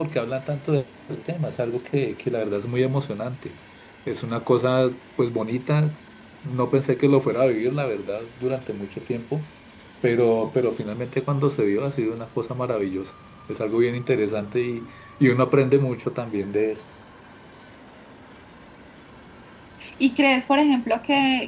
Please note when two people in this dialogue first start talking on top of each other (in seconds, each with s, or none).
none